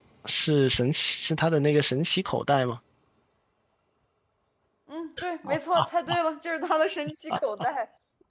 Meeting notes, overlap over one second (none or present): none